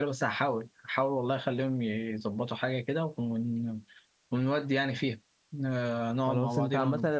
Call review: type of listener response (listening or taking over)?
taking over